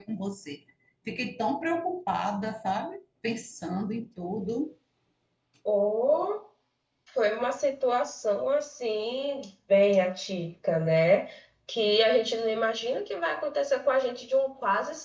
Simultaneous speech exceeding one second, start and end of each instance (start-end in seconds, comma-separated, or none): none